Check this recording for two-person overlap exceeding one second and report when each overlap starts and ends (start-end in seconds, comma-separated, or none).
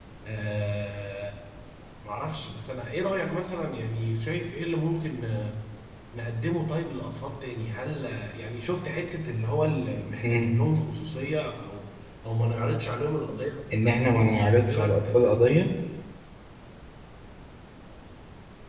13.8-15.5